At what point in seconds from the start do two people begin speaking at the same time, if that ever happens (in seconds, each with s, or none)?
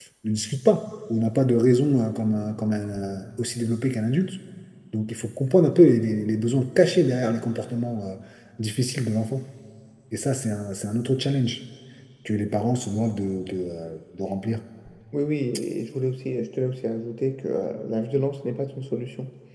none